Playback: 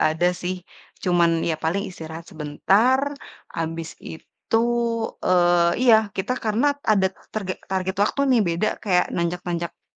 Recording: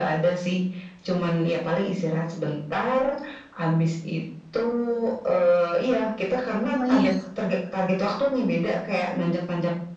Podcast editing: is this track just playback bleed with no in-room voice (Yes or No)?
No